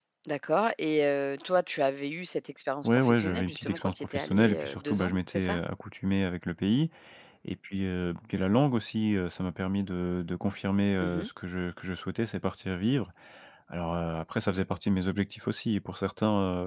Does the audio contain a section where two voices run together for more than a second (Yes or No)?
Yes